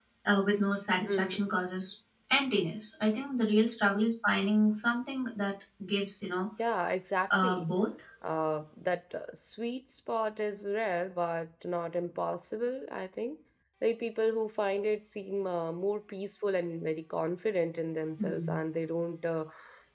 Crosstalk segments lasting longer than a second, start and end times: none

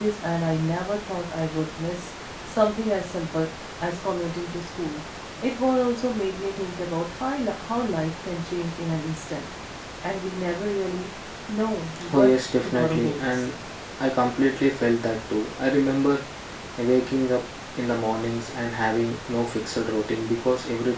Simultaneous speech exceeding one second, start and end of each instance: 12.1-13.5

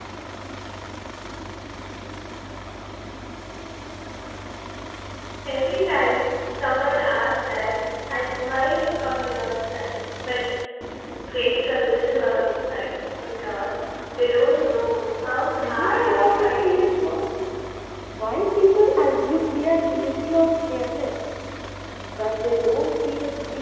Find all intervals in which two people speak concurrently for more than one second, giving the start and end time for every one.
15.6-16.9

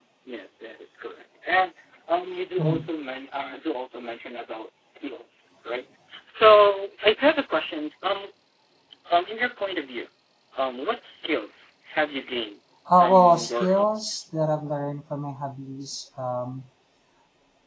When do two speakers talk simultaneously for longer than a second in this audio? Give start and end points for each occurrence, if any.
13.0-14.2

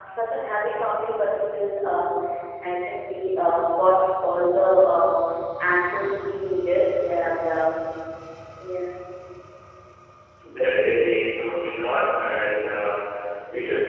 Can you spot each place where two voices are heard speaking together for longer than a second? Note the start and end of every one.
none

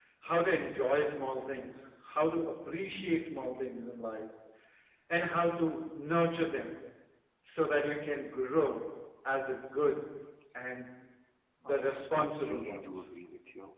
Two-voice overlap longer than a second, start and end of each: 11.7-13.0

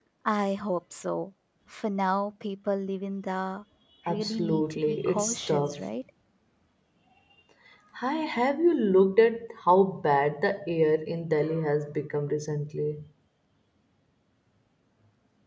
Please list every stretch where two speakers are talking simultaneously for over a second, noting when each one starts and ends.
4.1-5.8

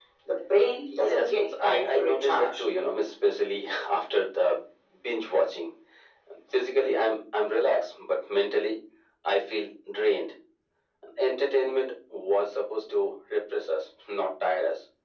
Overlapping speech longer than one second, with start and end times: 0.9-2.6

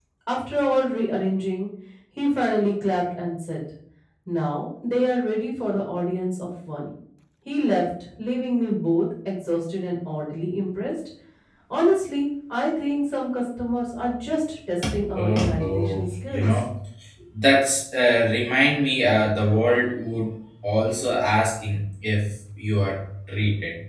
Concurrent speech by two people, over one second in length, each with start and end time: 15.2-16.6

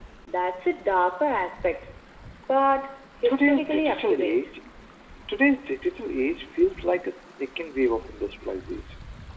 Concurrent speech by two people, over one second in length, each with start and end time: 3.2-4.5

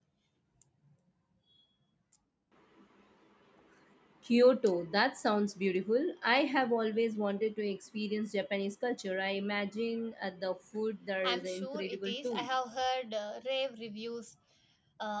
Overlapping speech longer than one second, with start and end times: 11.2-12.5

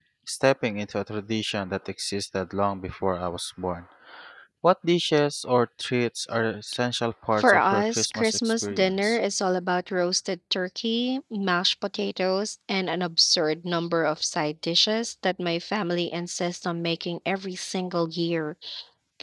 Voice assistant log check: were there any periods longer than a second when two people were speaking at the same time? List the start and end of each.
7.4-9.2

